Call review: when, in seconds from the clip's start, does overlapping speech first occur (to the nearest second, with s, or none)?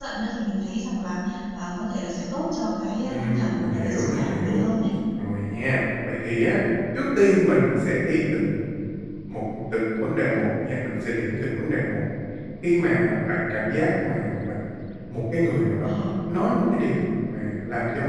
3 s